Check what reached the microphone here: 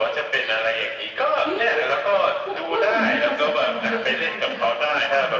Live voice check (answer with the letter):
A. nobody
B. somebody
B